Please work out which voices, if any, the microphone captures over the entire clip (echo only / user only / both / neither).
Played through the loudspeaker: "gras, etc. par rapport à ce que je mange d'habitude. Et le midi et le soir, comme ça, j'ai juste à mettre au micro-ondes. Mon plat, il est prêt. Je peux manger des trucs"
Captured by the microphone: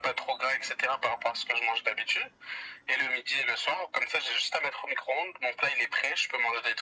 echo only